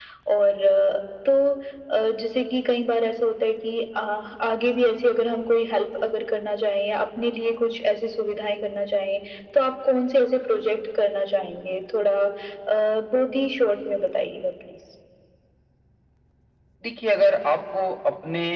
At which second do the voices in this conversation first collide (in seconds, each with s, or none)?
none